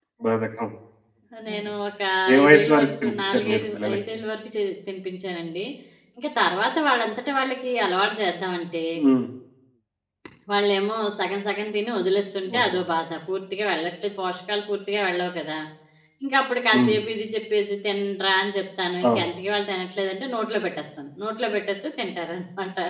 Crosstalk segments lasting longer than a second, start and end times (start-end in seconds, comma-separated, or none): 2.4-4.0